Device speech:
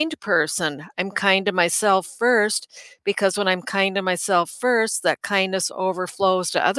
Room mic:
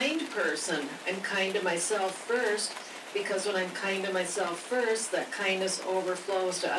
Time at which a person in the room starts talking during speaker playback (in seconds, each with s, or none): none